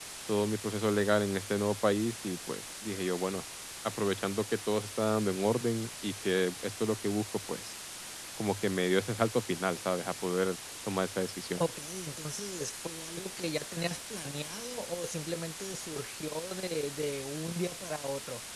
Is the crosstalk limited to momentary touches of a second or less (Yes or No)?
Yes